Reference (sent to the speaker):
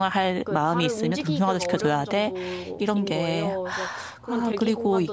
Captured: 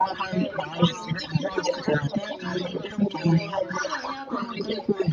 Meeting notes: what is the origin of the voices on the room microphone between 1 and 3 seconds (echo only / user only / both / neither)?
both